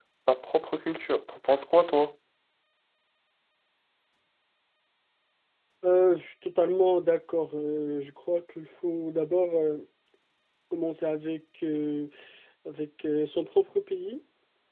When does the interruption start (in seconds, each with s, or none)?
none